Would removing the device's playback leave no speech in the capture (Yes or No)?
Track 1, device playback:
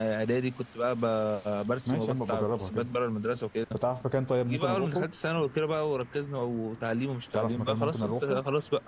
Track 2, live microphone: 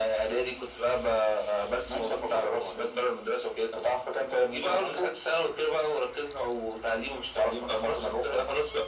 Yes